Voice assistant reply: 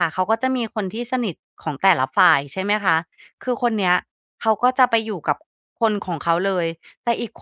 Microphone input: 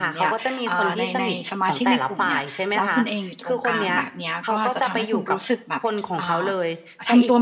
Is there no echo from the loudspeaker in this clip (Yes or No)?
No